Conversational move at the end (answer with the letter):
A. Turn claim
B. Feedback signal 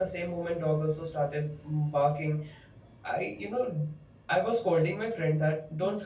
B